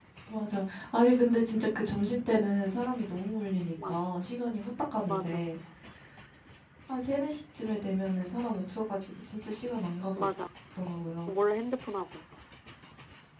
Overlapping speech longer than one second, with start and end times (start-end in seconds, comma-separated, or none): none